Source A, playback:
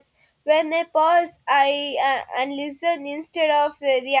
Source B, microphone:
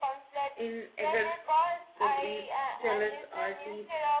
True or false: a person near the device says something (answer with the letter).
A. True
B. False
A